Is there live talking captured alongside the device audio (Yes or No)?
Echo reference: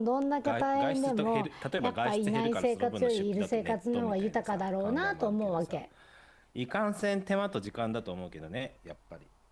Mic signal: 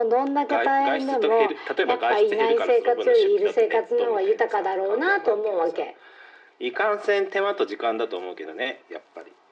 No